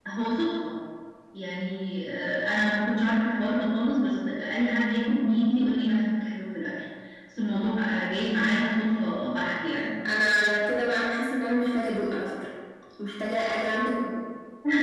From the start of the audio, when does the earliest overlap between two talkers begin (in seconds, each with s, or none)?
none